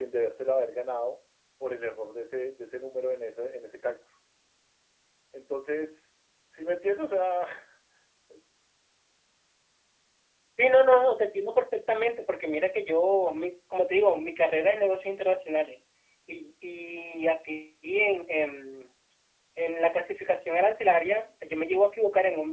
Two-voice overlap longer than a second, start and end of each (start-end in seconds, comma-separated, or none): none